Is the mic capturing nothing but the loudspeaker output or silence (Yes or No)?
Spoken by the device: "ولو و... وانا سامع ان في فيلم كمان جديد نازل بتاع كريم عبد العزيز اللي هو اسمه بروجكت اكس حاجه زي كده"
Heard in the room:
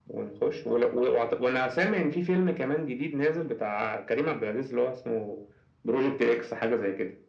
Yes